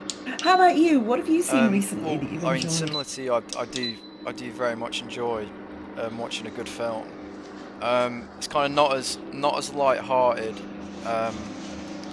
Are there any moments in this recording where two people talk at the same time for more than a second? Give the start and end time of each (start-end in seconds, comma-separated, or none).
1.5-2.9